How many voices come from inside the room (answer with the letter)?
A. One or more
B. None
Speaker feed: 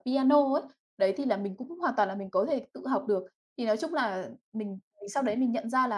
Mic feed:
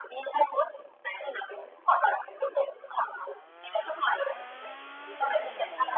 B